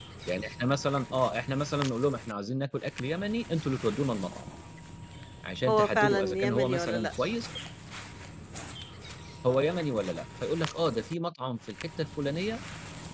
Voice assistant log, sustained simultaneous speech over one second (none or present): present